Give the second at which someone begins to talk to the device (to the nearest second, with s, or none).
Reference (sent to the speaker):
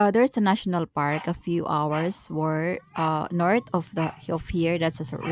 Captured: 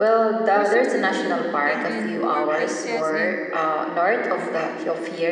1 s